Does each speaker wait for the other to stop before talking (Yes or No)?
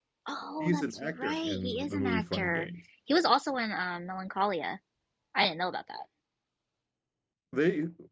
No